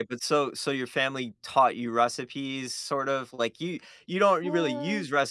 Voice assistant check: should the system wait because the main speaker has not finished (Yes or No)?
Yes